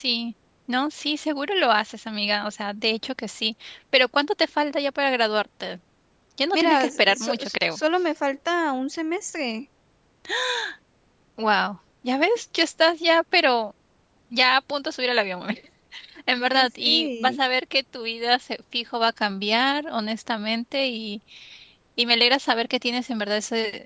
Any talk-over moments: Yes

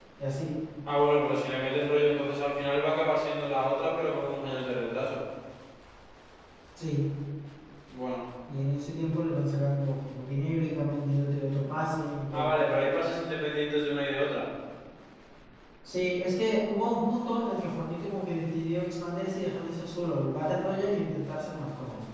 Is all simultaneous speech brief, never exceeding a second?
Yes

